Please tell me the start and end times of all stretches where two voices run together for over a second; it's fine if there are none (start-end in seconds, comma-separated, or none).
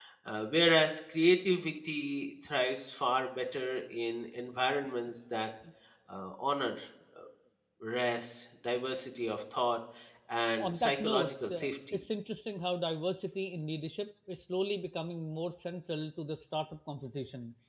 10.6-12.0